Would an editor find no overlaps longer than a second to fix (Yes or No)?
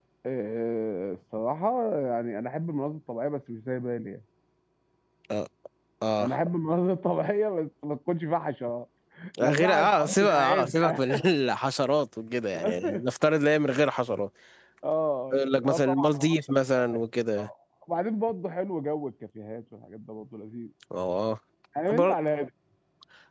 No